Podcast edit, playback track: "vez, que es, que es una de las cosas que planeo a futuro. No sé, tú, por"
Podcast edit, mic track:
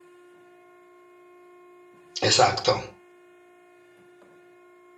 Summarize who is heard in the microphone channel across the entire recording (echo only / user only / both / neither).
user only